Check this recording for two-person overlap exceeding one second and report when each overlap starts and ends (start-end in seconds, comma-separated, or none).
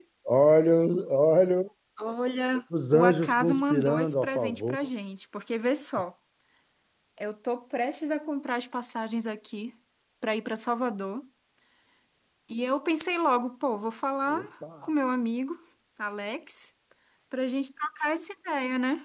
2.9-4.8